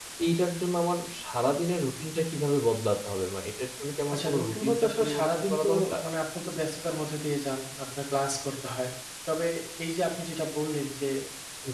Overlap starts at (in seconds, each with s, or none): 4.1 s